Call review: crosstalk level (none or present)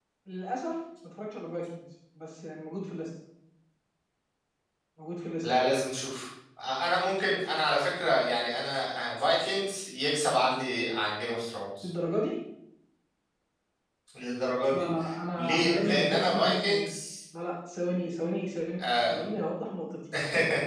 present